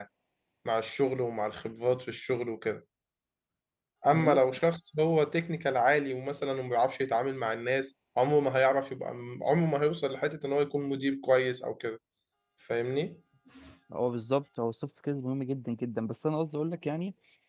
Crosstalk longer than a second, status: none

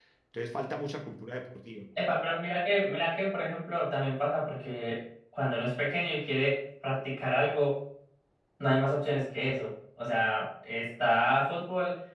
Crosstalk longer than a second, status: none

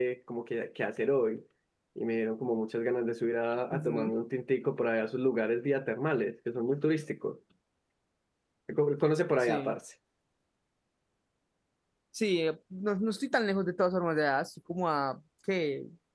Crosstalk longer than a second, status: none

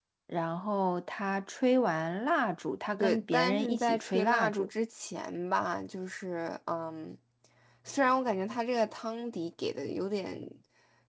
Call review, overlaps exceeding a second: present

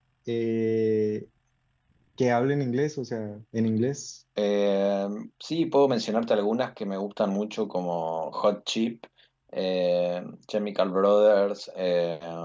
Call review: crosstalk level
none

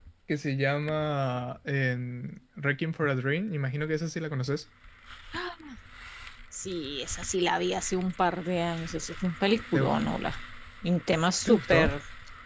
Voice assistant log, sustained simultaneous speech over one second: none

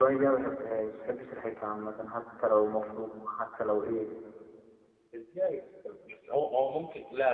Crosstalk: none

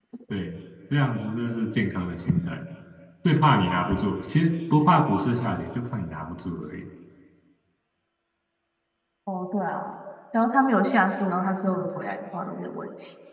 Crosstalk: none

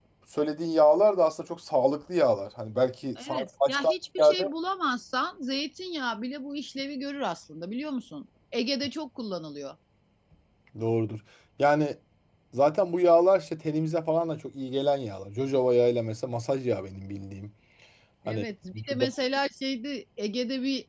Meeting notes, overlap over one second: present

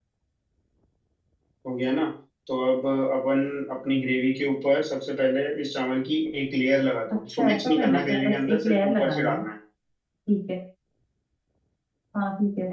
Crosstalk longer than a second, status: present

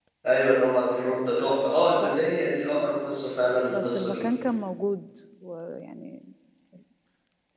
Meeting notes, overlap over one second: none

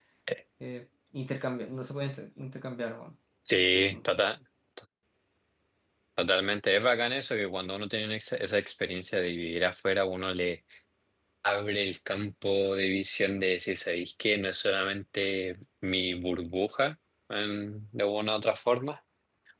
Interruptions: none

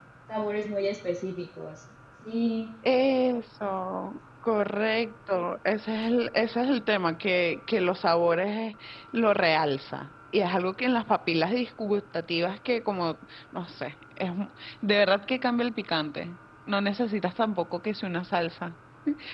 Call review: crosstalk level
none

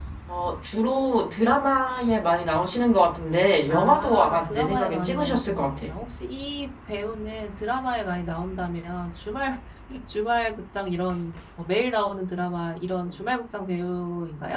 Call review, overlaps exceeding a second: present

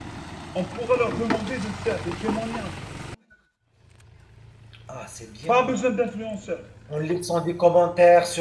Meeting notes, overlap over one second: none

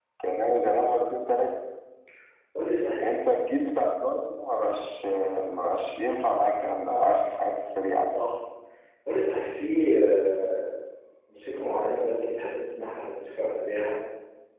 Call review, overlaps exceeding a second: none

